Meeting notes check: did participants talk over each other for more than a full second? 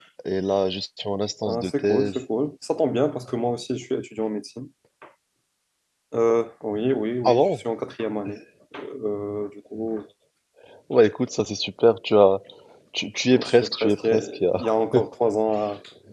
Yes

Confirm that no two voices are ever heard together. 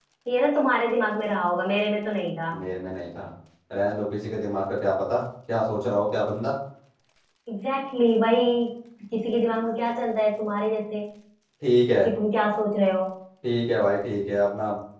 Yes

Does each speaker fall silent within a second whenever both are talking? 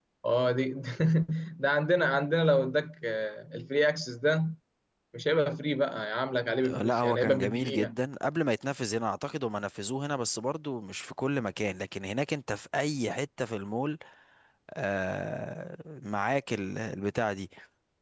No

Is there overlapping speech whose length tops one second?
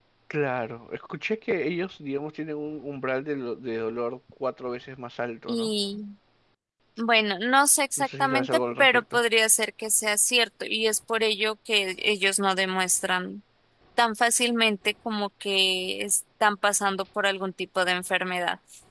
Yes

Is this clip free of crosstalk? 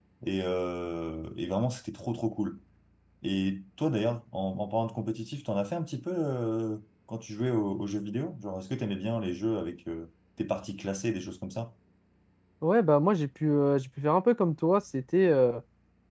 Yes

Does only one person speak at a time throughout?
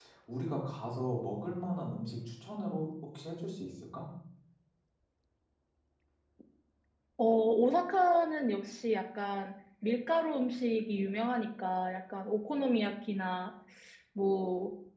Yes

